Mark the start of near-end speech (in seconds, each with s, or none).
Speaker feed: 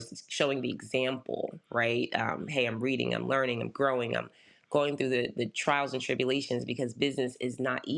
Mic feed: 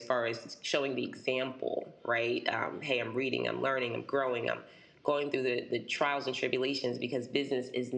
none